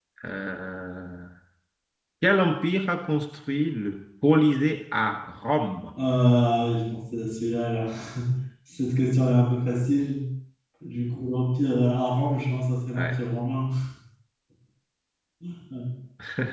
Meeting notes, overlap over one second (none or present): none